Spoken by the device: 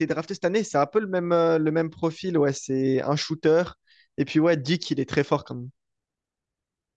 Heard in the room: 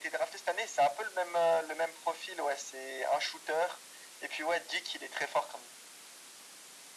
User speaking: No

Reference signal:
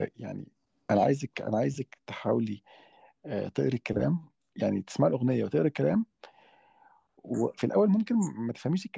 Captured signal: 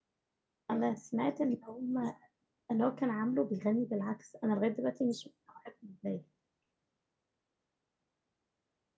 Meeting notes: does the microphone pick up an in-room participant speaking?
Yes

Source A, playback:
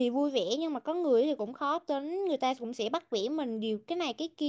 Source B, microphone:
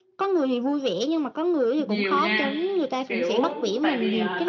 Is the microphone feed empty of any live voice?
No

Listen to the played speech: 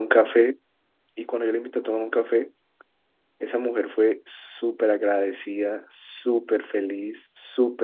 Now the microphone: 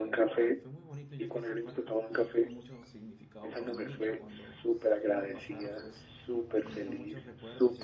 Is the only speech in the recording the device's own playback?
No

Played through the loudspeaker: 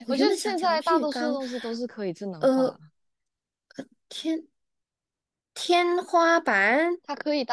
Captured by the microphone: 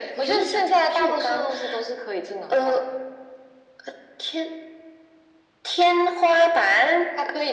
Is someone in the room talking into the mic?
No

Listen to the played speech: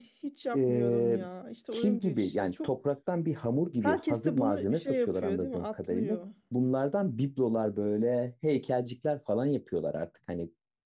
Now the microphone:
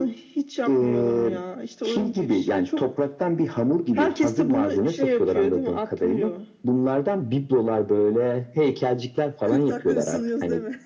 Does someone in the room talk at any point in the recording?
Yes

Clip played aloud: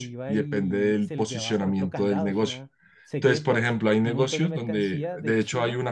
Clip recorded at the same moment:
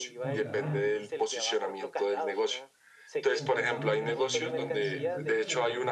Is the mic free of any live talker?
No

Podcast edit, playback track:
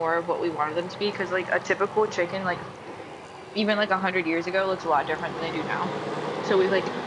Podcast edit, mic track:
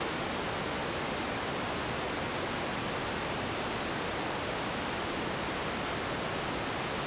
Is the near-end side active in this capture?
No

